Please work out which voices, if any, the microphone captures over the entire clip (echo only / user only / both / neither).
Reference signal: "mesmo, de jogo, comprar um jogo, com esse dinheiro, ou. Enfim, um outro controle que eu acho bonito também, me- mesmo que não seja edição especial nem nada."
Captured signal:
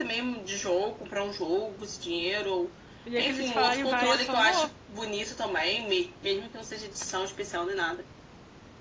both